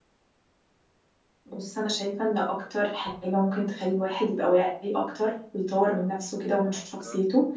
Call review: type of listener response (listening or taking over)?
listening